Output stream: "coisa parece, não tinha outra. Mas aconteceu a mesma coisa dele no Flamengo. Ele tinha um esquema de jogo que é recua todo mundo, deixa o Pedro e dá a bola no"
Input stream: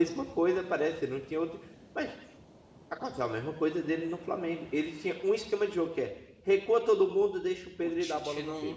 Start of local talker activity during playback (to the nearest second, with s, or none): 8 s